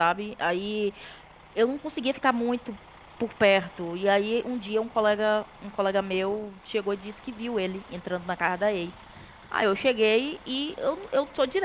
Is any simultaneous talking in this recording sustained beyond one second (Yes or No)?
No